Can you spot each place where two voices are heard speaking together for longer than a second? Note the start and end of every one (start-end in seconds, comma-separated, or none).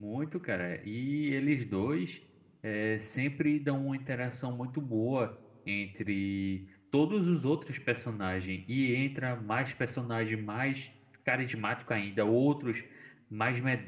none